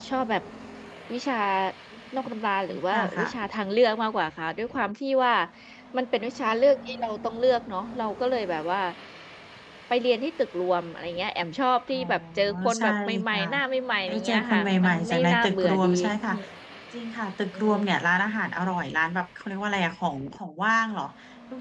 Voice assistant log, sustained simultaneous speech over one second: present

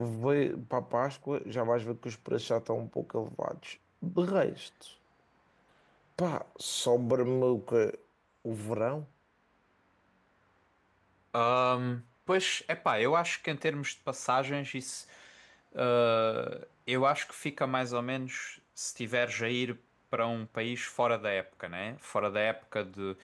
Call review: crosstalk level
none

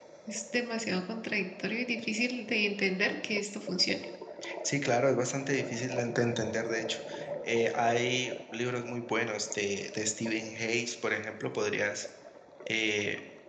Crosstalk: none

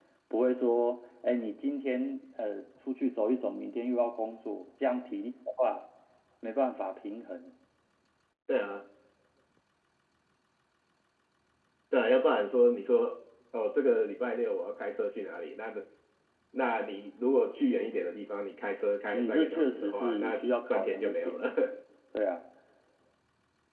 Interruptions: present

